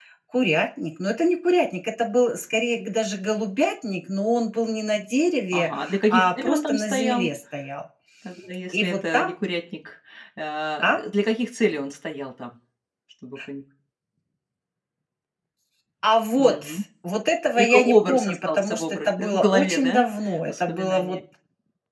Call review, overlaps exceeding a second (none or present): present